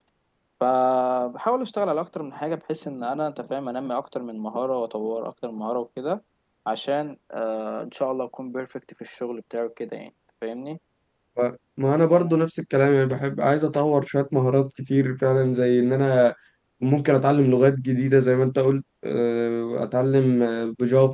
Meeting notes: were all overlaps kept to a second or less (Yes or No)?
Yes